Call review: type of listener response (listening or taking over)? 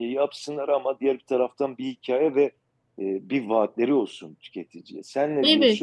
taking over